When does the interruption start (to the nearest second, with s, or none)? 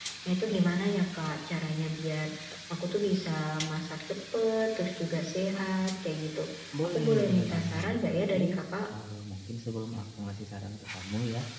7 s